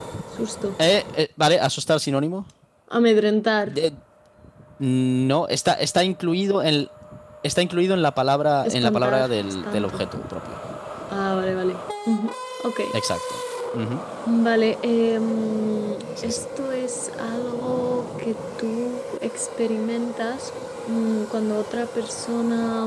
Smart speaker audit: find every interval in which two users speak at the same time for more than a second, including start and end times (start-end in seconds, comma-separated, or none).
8.7-10.0